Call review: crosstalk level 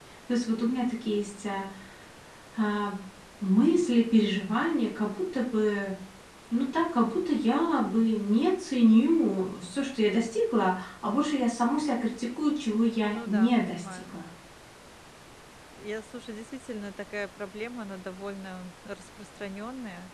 present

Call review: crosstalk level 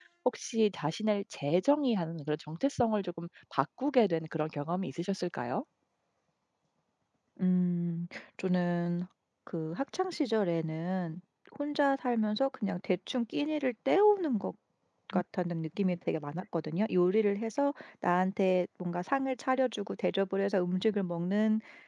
none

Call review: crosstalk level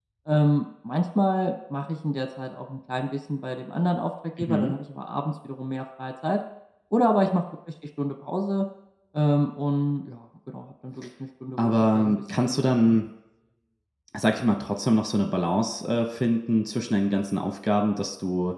present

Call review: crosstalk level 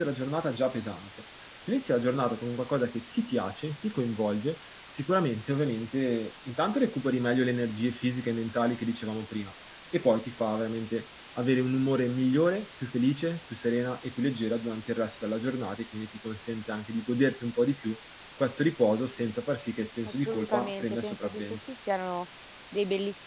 present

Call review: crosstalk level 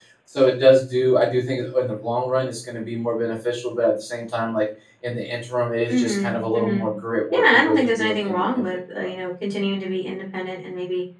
present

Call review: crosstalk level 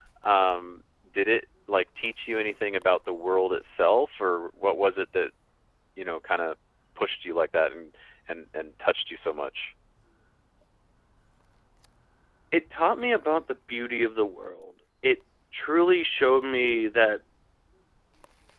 none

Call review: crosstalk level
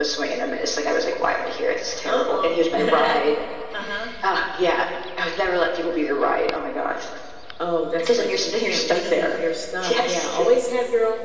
present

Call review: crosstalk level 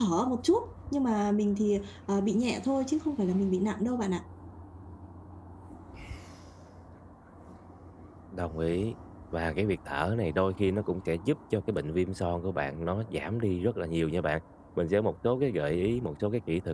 none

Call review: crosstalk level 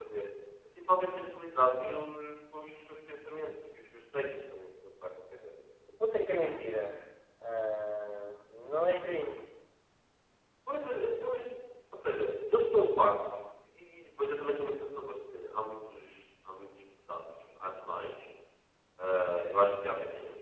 none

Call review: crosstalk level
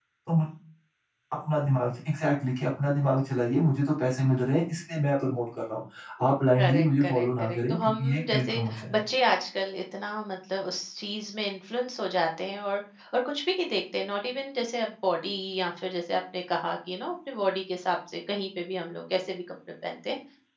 present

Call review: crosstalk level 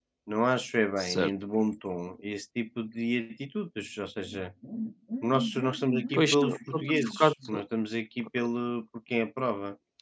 present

